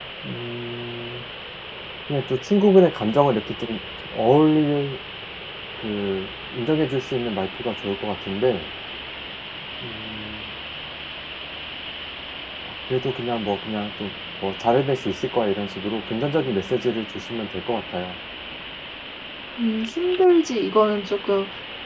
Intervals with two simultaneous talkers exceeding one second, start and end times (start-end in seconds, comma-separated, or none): none